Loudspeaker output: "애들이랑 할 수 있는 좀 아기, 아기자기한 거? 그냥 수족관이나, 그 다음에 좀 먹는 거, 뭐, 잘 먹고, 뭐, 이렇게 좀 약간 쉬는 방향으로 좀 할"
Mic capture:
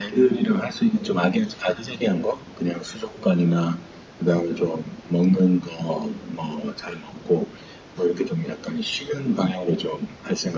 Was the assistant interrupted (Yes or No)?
No